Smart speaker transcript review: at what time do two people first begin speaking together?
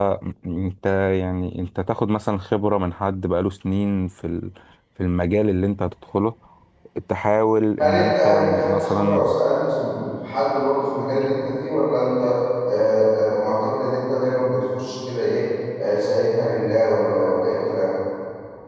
7.8 s

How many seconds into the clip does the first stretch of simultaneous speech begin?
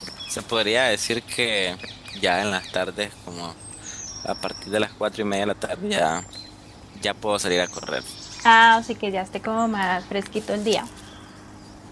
none

